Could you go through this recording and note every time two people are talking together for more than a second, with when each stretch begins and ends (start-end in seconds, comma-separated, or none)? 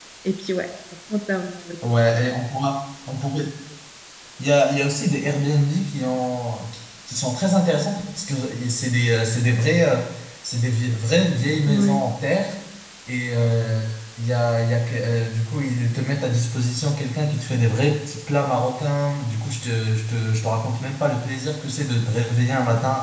none